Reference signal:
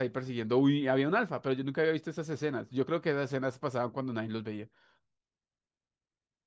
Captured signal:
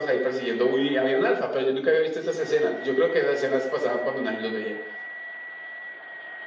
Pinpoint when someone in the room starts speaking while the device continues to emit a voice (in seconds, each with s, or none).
none